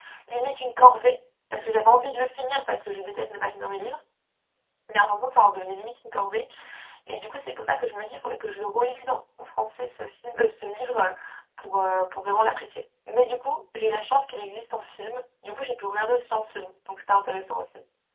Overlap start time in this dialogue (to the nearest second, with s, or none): none